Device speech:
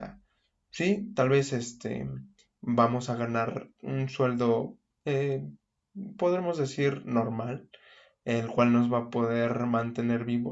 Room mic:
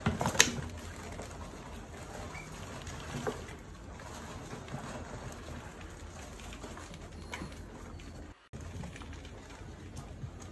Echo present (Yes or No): No